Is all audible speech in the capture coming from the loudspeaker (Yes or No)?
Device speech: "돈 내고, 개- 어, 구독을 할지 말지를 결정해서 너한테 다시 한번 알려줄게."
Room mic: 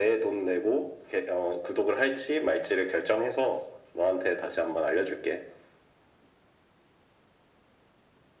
Yes